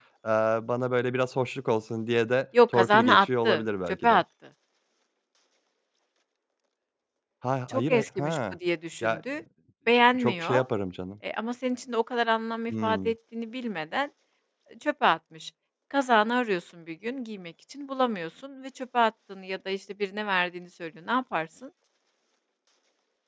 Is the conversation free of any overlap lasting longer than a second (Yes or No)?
No